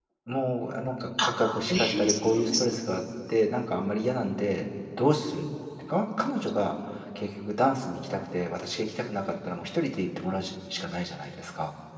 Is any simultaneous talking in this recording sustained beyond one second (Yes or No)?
Yes